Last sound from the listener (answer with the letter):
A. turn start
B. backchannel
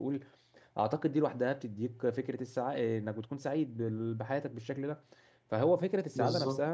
B